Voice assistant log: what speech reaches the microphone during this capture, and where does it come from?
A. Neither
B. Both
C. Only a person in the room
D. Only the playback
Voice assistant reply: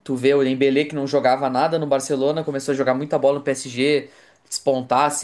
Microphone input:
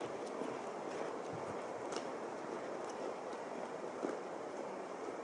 A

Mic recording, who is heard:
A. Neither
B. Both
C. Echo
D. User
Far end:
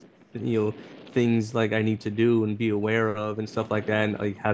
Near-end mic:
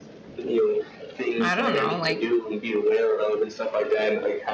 B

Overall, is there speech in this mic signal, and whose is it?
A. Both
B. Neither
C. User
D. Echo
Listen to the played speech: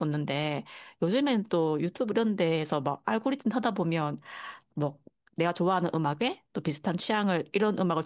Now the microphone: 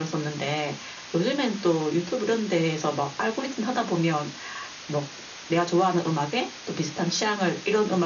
D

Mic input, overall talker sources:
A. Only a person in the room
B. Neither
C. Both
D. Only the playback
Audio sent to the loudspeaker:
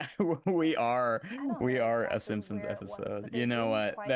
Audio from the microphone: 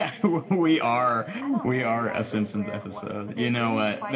D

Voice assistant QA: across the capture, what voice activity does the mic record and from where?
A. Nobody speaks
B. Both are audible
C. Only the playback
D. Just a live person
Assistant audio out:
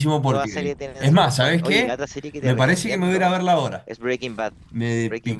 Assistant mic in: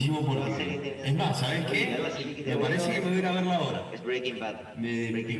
B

